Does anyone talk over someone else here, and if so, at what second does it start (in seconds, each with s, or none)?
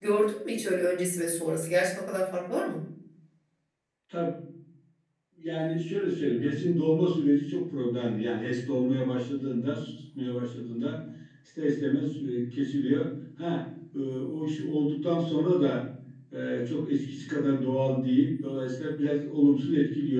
none